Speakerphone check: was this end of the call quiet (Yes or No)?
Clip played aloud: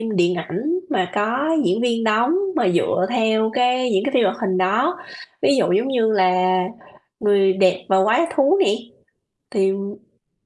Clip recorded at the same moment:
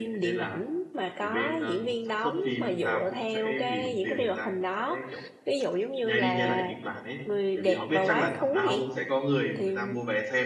No